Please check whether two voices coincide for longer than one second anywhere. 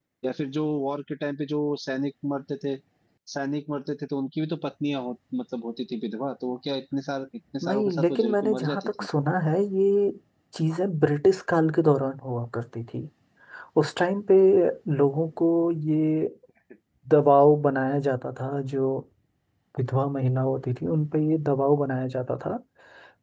Yes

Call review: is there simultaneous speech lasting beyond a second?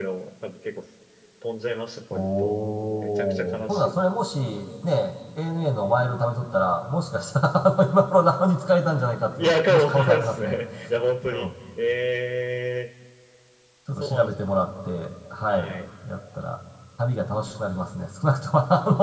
Yes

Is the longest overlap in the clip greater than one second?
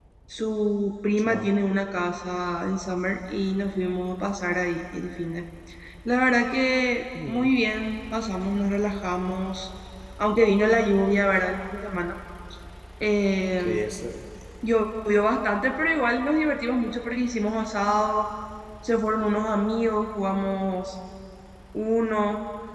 No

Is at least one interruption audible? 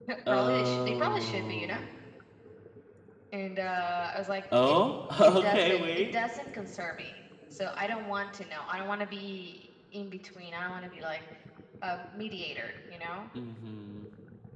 Yes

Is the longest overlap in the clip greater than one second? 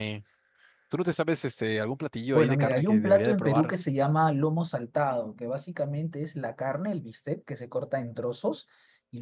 Yes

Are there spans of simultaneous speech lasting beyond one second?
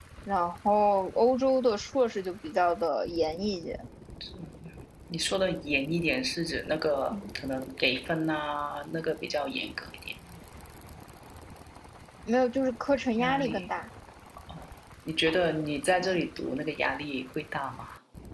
No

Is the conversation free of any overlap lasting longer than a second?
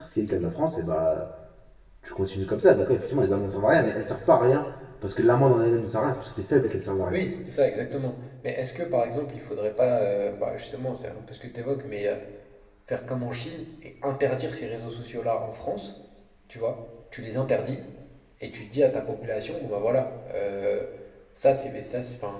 Yes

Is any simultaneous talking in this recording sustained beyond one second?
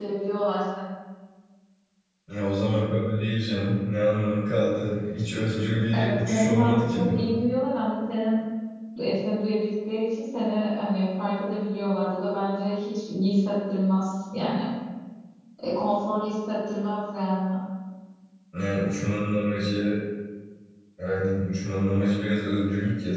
Yes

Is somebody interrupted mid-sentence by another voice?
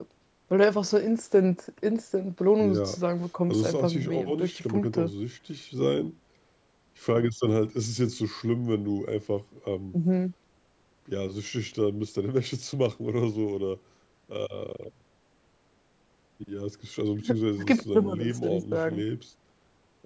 Yes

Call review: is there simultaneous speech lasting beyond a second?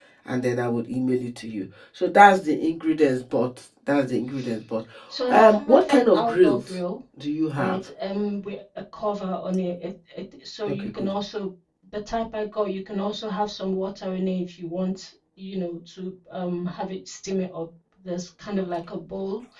Yes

